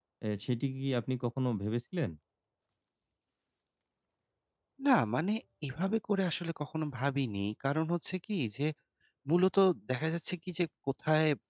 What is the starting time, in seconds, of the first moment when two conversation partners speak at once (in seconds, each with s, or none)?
none